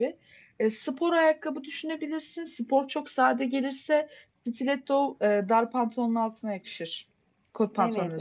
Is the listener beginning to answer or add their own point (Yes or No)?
Yes